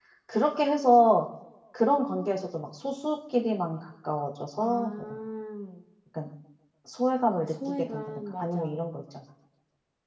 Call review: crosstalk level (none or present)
present